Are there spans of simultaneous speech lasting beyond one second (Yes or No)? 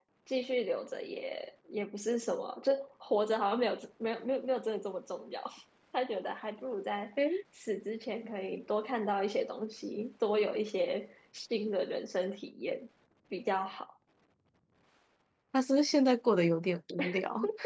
No